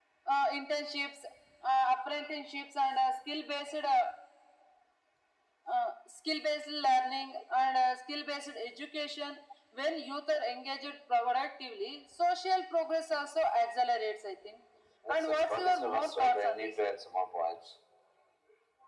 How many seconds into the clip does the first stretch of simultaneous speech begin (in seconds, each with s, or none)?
15.2 s